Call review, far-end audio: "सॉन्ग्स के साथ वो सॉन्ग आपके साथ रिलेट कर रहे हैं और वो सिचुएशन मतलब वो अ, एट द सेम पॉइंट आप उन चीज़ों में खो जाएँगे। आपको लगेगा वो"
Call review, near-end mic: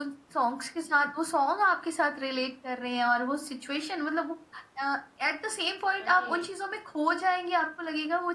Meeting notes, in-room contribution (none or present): present